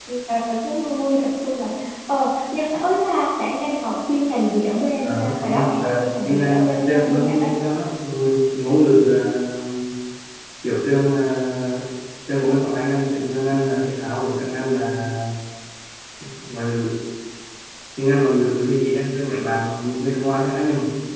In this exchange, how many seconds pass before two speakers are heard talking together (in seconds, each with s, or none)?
5.0 s